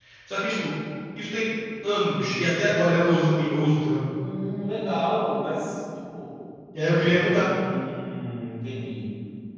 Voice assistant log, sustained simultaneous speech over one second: none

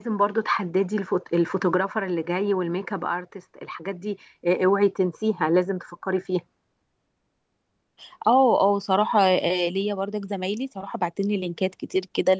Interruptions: none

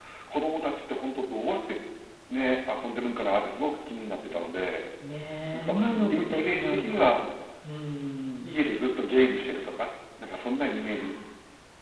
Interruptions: present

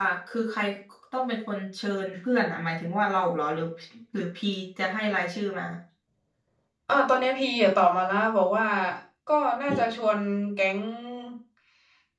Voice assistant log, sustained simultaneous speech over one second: none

